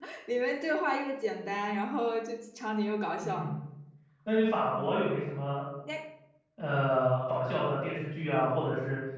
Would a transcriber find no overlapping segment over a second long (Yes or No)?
Yes